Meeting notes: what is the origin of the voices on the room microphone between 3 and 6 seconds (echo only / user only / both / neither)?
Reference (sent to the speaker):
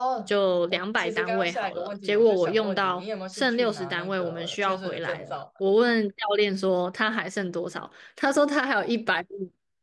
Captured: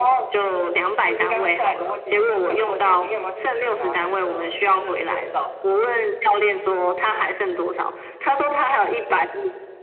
echo only